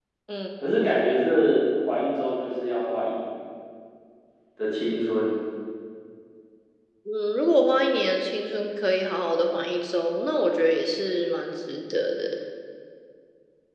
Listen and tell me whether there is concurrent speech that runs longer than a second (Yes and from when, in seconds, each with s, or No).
No